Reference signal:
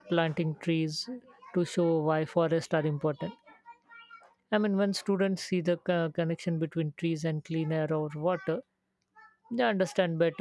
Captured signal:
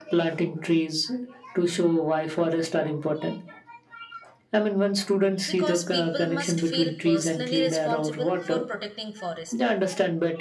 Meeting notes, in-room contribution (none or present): present